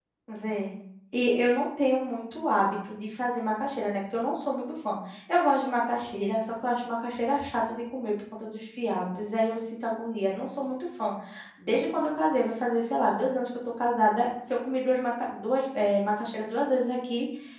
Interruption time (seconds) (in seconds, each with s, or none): none